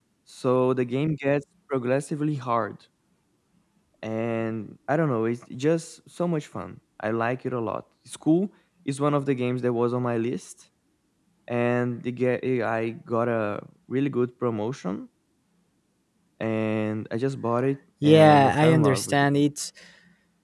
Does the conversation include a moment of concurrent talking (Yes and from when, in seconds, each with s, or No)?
Yes, from 18.0 s